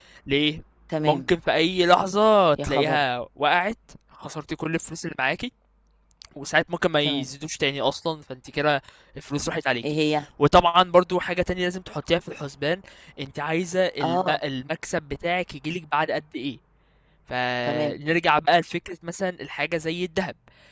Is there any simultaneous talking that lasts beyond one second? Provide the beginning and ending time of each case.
none

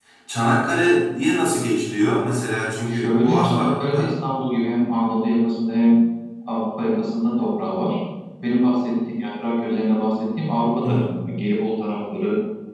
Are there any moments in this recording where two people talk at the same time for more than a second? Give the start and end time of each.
2.9-4.1

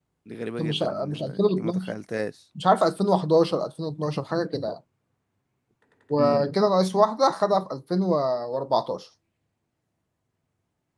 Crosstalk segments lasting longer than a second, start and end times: 0.6-1.9

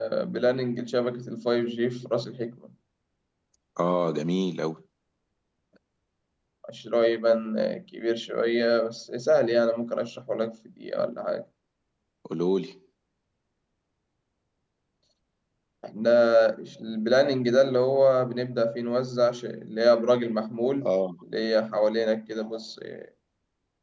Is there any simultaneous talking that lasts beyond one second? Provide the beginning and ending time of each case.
none

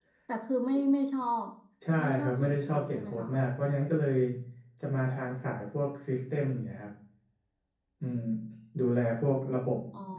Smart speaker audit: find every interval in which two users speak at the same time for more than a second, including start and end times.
2.0-3.3

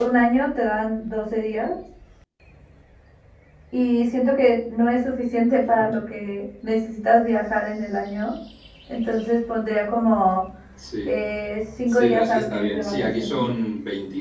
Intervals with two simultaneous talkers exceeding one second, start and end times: 11.9-13.5

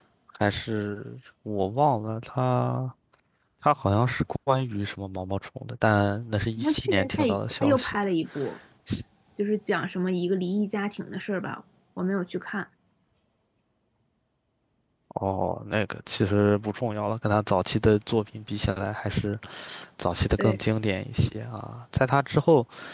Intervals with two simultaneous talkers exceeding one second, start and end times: 6.6-8.0

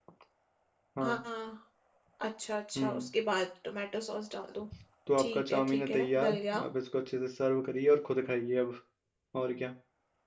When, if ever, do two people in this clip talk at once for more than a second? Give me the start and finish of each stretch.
5.2-6.6

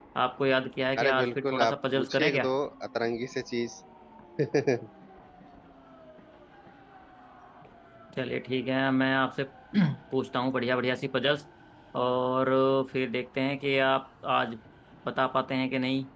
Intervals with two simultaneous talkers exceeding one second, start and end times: 1.0-2.5

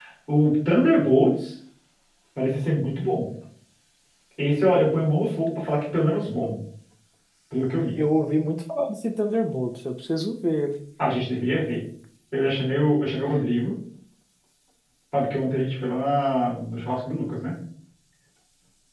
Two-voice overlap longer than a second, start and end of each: none

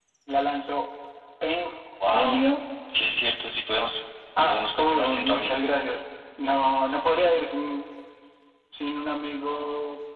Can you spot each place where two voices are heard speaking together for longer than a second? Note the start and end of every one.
4.5-5.7

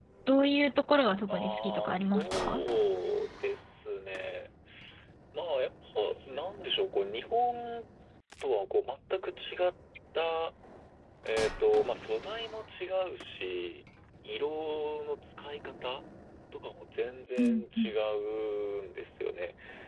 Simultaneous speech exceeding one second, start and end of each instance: 1.3-2.6

